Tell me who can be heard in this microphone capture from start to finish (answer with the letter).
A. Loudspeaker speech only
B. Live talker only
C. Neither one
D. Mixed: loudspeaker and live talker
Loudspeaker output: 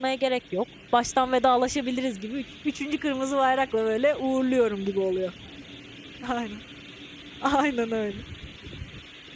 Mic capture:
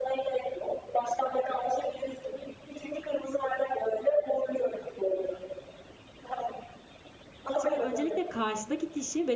D